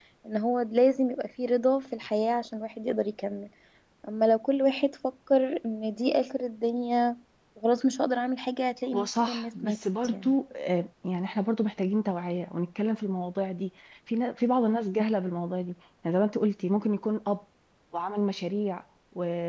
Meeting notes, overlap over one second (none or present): present